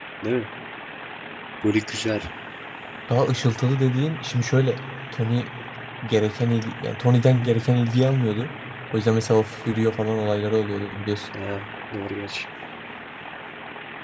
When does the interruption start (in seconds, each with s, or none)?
none